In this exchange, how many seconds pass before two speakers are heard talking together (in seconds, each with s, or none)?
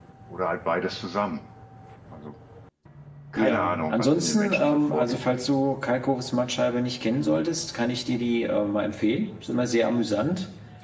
3.4 s